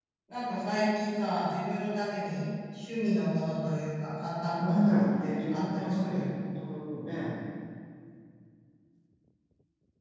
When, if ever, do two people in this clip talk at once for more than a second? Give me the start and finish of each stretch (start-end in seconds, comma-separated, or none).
4.6-6.3